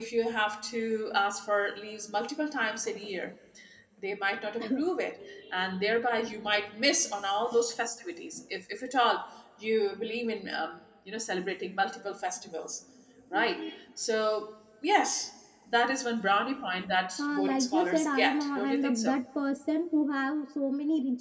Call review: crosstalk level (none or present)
present